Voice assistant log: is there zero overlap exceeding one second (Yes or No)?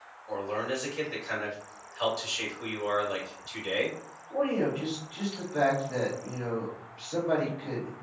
Yes